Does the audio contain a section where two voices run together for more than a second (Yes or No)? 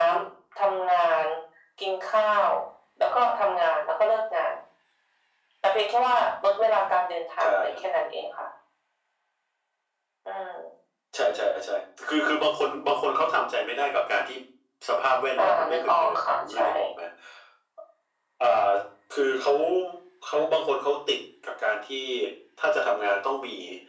Yes